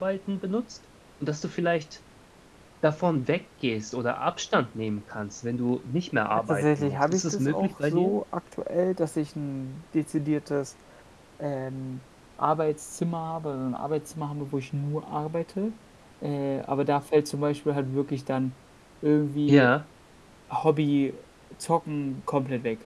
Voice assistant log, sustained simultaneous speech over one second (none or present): present